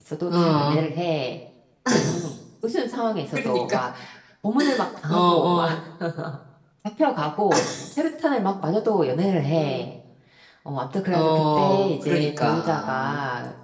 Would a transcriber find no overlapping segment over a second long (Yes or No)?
No